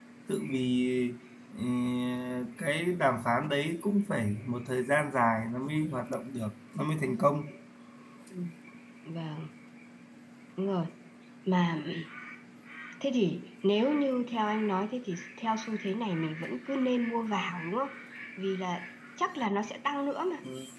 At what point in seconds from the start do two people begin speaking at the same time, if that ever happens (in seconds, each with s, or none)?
none